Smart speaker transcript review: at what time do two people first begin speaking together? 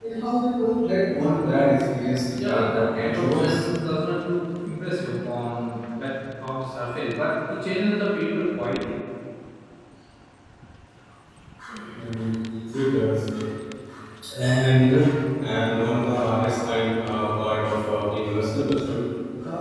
2.4 s

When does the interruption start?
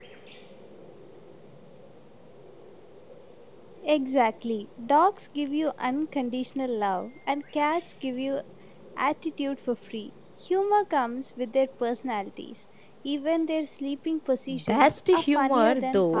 14.5 s

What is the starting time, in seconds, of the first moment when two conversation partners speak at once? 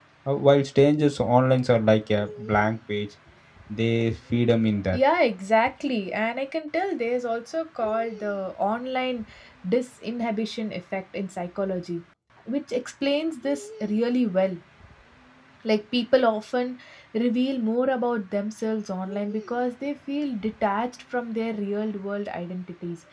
none

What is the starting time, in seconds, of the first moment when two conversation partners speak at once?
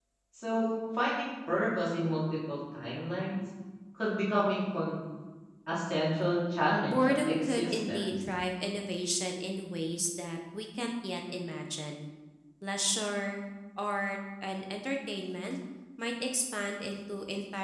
6.9 s

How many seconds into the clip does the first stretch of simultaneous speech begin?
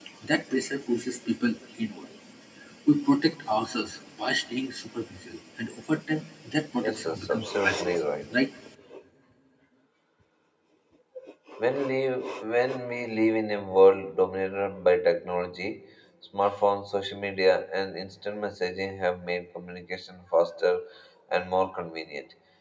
6.8 s

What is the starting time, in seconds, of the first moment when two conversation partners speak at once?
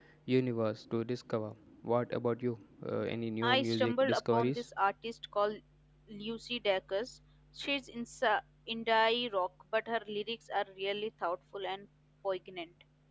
3.4 s

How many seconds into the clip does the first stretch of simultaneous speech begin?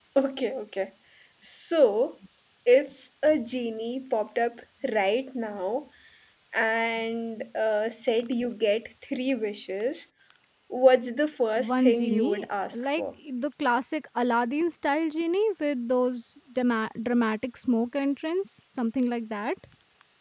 11.6 s

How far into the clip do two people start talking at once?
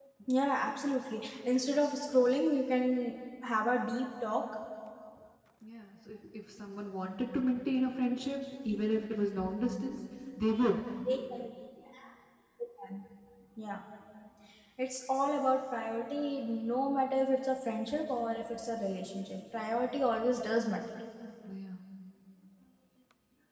none

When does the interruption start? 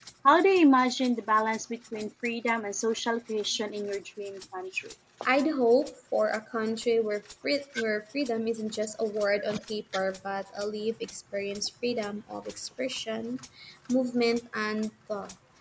none

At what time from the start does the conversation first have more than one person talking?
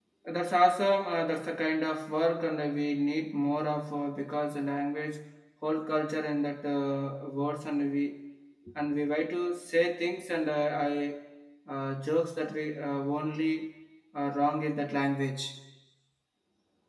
none

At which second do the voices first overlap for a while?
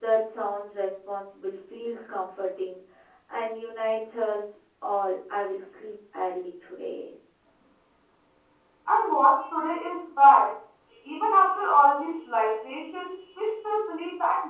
none

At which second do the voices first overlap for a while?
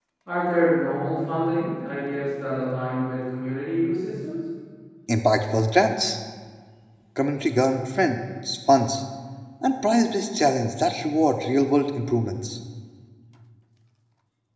none

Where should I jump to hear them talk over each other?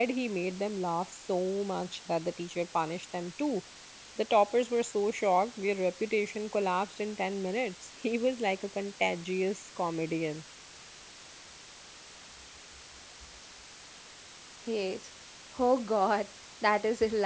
none

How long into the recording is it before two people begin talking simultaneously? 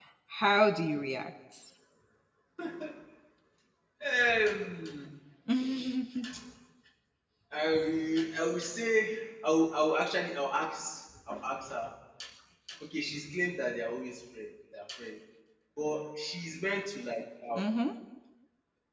none

